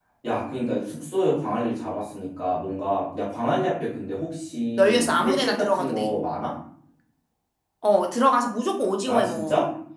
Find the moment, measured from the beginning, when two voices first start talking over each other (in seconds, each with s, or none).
4.8 s